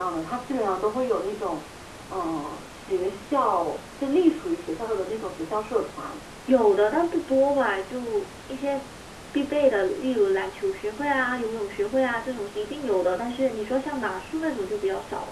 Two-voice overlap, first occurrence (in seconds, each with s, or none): none